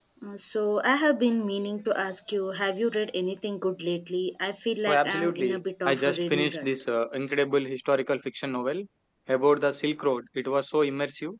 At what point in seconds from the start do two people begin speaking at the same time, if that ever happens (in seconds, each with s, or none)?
4.9 s